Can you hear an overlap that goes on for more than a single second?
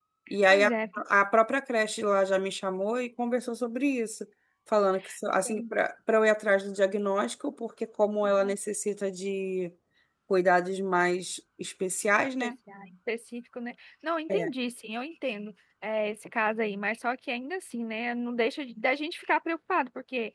No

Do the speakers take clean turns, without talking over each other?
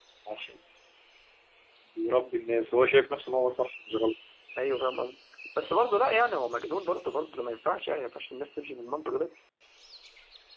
Yes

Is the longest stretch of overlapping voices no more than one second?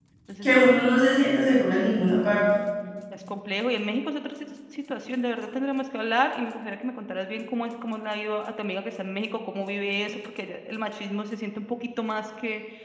Yes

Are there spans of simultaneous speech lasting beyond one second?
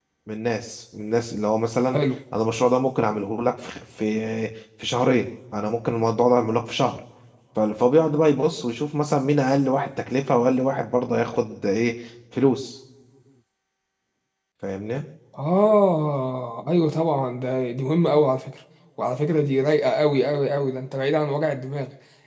No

